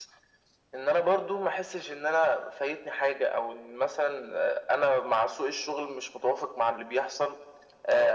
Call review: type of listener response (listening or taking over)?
listening